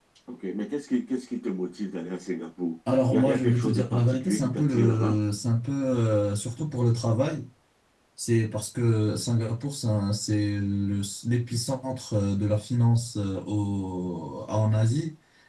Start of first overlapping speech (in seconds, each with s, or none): 2.9 s